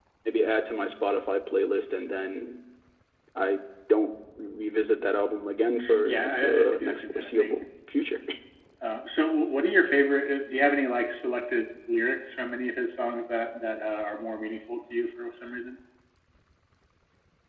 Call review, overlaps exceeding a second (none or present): present